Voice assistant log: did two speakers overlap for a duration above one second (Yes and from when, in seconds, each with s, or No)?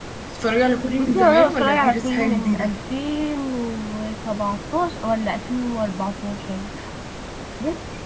Yes, from 1.0 s